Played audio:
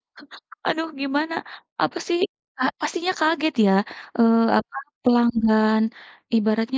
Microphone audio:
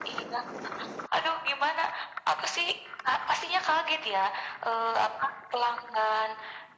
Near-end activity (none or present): none